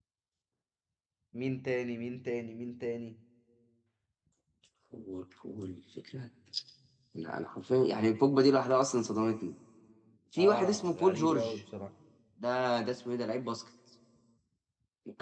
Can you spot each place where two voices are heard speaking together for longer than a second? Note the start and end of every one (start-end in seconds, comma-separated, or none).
10.4-11.6